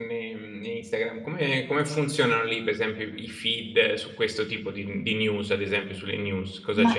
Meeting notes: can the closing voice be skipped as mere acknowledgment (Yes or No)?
No